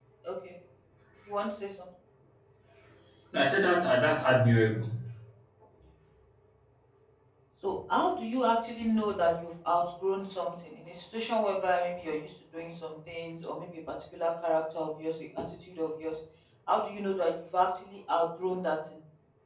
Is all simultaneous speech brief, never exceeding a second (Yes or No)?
Yes